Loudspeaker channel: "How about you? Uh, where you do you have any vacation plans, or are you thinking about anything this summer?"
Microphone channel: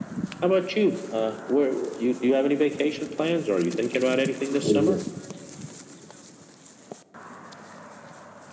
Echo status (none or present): present